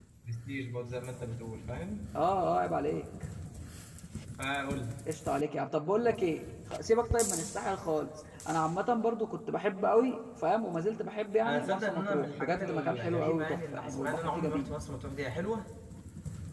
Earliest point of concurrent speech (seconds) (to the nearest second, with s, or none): 11 s